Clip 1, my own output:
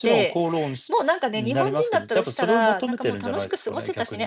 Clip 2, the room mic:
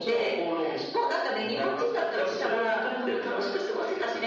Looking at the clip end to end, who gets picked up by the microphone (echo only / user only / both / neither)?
echo only